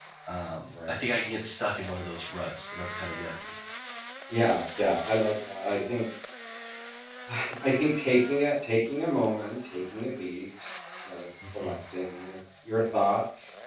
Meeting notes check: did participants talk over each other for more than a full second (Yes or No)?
No